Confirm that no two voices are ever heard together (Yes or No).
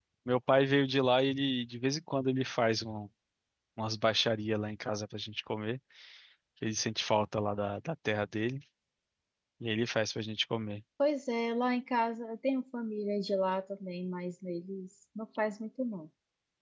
Yes